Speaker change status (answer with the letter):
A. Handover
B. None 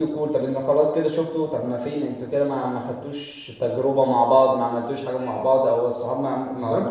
A